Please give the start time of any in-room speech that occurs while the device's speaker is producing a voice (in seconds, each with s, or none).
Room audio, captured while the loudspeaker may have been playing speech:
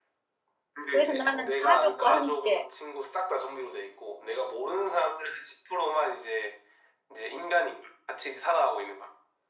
0.9 s